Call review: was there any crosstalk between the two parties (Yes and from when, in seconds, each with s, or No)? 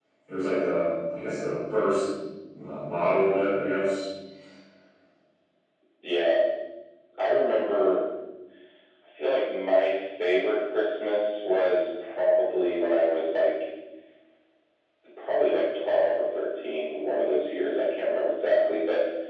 No